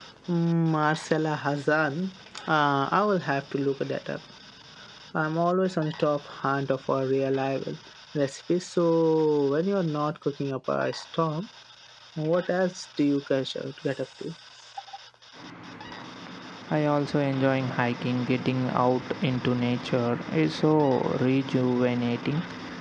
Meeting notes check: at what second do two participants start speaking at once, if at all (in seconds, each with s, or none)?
none